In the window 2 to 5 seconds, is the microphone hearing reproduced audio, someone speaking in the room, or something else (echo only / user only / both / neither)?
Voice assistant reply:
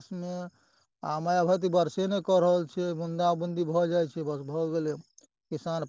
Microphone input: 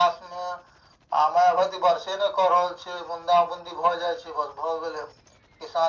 echo only